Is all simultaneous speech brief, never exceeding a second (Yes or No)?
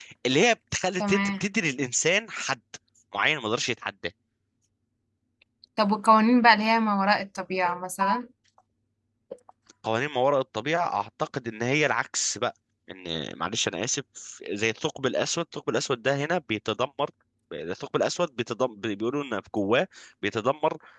Yes